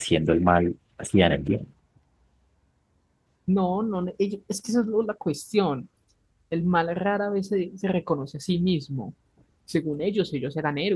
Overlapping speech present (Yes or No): No